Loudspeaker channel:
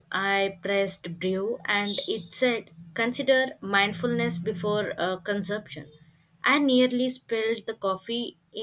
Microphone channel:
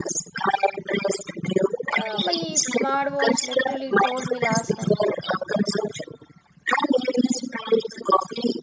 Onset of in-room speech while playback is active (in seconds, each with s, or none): 1.9 s